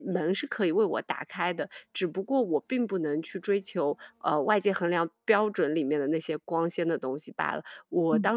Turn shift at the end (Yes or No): No